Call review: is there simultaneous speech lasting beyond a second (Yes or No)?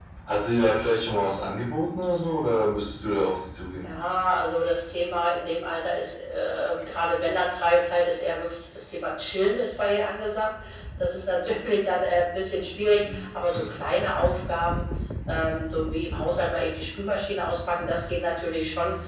No